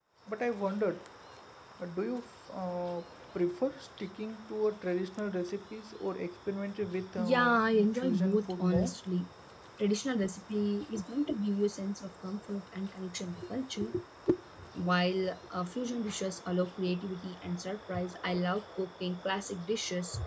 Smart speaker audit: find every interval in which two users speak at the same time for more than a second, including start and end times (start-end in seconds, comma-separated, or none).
7.2-8.9